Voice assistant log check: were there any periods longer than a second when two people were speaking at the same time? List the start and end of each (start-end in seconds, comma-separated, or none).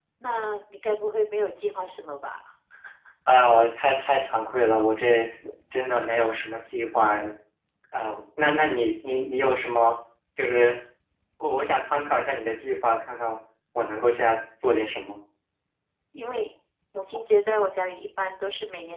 none